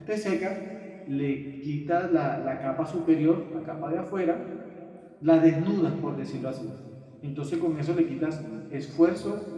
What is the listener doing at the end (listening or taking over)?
listening